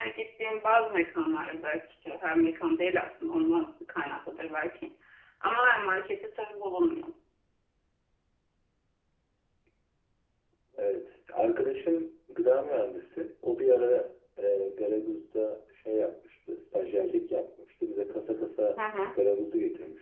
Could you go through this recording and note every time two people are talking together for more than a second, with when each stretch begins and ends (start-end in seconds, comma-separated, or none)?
none